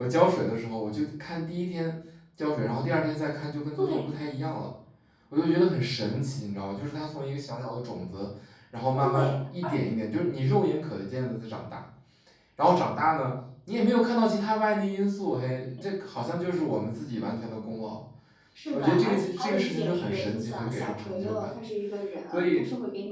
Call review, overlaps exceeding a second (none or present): present